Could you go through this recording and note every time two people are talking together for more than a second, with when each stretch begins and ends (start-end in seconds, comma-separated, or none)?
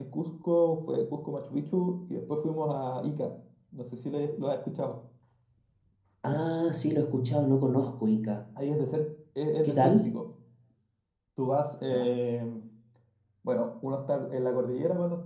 none